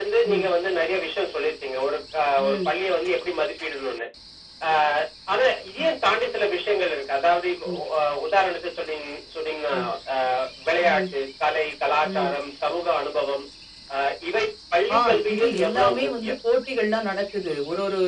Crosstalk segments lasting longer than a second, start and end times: 15.0-16.3

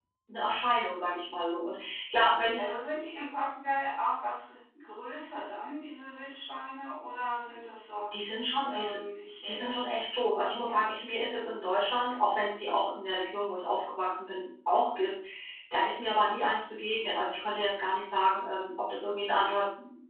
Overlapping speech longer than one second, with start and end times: none

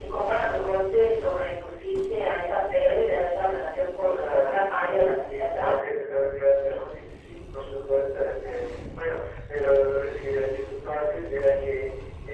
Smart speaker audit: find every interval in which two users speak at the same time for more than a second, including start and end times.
4.1-5.7

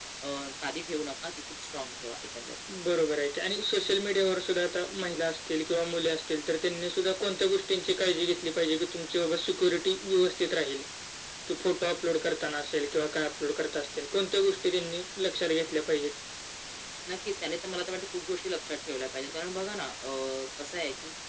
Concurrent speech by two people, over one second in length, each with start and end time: none

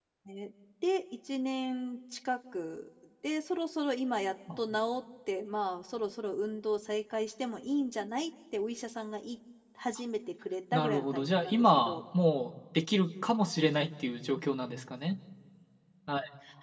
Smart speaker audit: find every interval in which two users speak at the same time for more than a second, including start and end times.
10.7-12.0

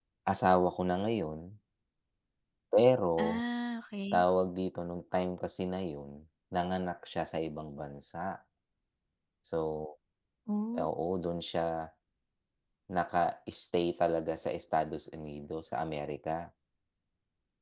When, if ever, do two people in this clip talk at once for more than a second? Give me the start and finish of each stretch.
none

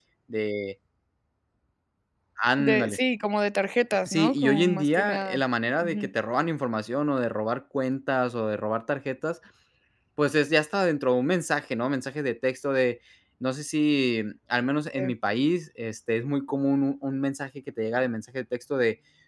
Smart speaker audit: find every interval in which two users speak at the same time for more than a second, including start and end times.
4.0-5.4

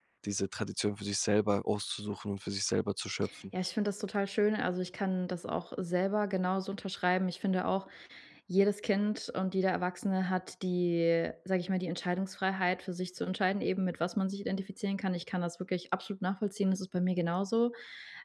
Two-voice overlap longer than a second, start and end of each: none

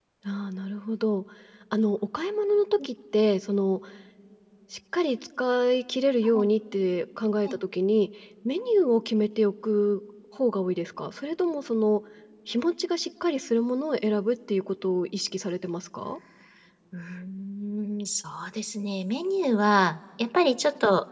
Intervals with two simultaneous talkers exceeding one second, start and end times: none

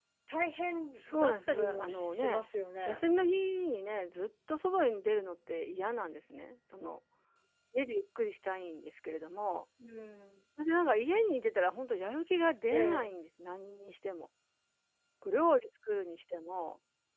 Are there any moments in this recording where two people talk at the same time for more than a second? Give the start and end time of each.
1.1-2.4

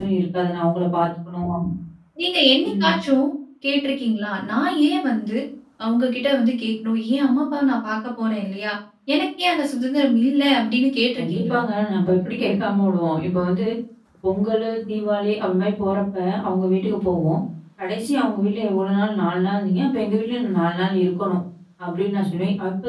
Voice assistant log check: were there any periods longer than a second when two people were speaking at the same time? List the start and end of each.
none

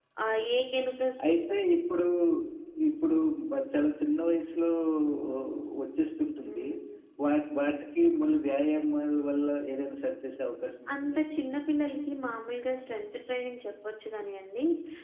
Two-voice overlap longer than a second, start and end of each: none

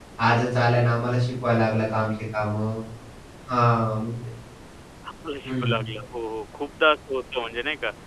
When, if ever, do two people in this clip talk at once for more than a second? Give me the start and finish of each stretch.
none

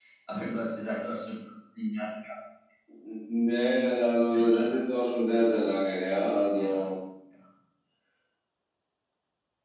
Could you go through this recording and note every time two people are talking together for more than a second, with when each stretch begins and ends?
none

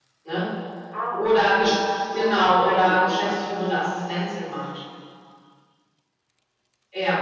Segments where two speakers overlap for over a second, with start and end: 2.1-3.8

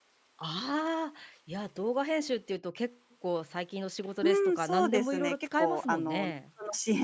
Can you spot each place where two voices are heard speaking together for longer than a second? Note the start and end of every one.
4.2-6.3

